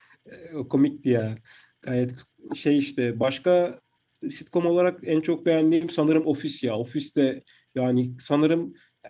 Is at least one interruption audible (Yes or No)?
No